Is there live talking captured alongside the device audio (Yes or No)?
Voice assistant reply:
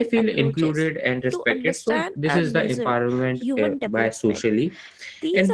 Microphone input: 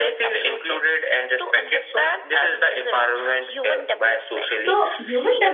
Yes